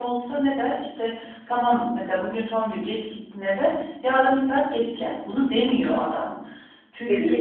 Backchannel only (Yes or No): No